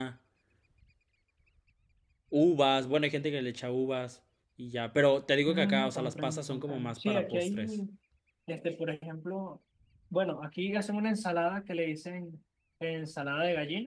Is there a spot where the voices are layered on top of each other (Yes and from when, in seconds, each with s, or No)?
Yes, from 5.5 s